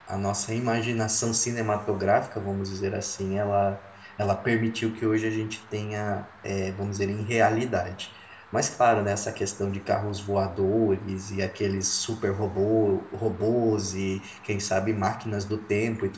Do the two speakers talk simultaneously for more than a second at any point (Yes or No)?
No